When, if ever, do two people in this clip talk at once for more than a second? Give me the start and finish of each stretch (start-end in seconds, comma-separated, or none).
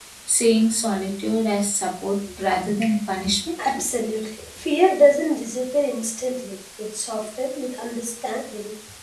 none